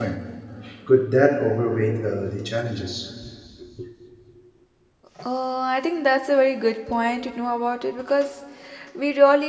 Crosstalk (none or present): none